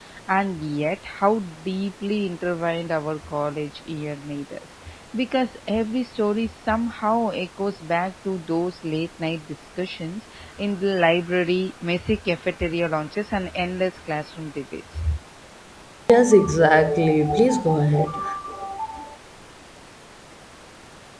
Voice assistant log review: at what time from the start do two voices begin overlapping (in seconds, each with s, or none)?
none